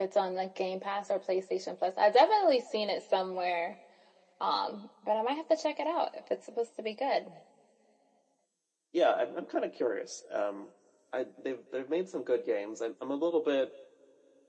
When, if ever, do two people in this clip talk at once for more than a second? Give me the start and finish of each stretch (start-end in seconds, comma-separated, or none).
none